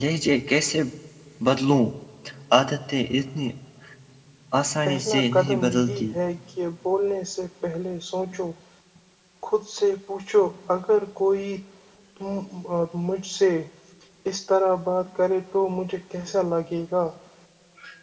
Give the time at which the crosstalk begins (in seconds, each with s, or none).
4.9 s